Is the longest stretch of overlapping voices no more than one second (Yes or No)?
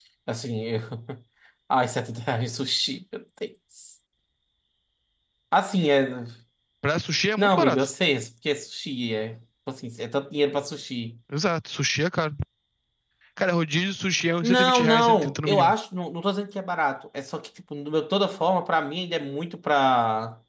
No